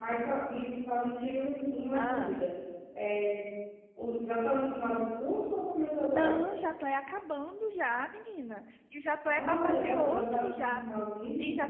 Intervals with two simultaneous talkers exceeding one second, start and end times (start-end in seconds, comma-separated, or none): 9.2-10.8